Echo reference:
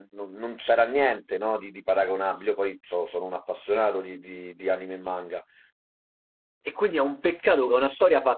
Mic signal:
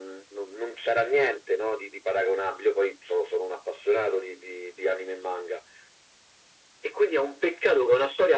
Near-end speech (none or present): none